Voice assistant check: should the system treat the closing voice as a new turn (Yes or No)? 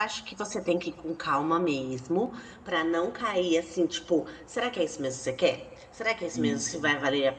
No